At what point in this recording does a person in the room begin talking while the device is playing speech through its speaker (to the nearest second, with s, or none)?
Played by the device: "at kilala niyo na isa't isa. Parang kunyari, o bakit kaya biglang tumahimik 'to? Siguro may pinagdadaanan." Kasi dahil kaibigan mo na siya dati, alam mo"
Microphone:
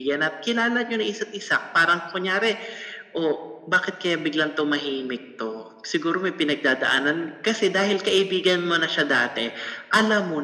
none